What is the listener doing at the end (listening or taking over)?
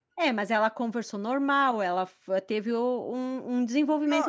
taking over